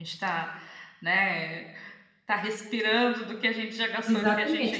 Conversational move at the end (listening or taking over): taking over